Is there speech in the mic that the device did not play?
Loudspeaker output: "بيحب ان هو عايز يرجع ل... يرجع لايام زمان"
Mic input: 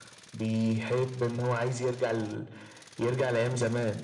No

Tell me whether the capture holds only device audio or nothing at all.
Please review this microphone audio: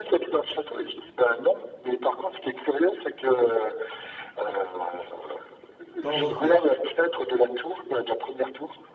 No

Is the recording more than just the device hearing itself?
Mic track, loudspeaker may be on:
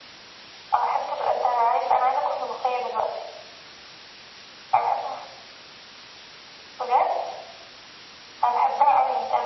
No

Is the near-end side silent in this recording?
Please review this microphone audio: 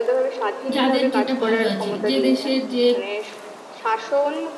No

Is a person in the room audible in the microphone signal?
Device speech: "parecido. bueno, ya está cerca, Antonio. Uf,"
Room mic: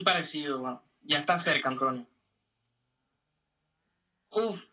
No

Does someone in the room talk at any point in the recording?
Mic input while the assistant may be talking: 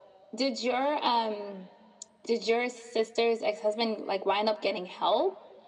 No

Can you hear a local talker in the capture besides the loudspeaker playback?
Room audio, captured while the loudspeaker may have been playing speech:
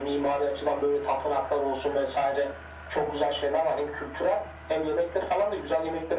No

